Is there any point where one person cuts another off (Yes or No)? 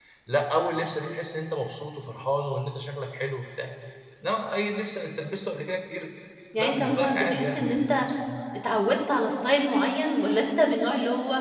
Yes